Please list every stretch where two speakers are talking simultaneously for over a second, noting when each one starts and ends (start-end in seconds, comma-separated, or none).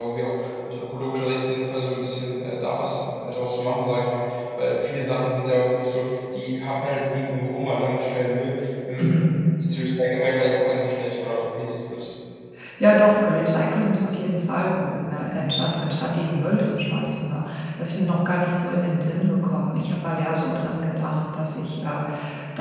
none